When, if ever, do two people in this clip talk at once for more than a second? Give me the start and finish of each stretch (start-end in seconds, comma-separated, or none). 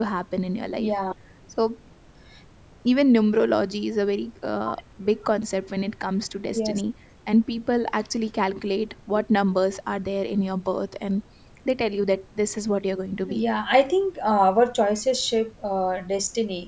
none